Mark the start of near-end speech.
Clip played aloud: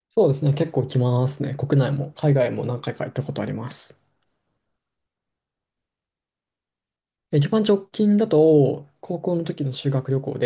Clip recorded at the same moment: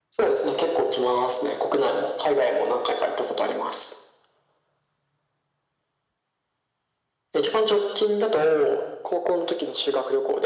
none

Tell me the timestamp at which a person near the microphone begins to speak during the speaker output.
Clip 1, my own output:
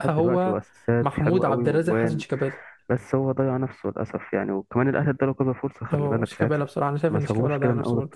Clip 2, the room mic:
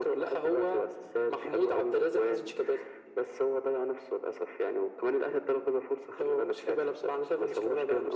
none

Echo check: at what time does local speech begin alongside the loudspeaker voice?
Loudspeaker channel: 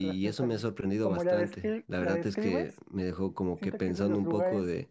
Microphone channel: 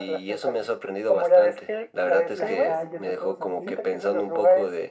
2 s

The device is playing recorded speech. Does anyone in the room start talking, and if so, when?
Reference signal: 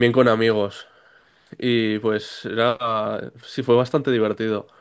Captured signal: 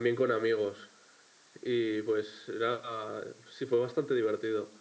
none

